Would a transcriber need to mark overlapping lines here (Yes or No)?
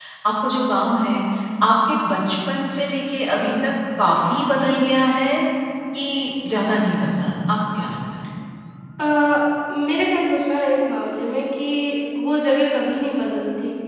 No